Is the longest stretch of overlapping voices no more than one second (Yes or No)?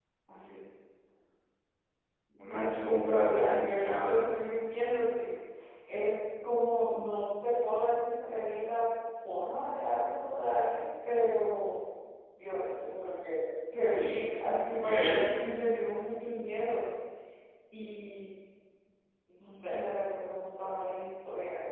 No